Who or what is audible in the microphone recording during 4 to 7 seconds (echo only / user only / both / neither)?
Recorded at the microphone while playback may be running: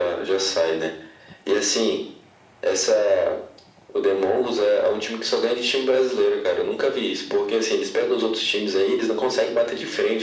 echo only